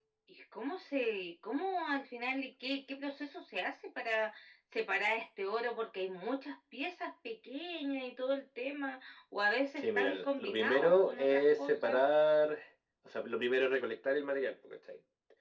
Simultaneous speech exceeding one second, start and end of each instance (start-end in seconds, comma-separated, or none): 9.8-12.0